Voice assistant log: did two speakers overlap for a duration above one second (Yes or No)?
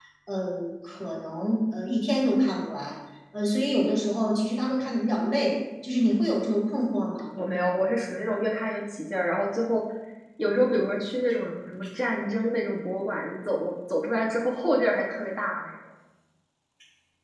No